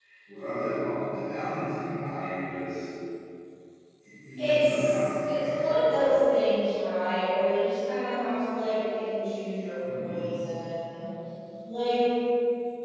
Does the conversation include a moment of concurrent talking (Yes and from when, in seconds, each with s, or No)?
Yes, from 4.4 s